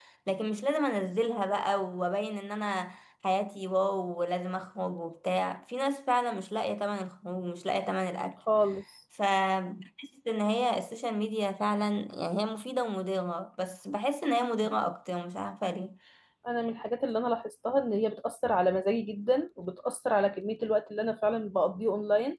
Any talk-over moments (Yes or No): No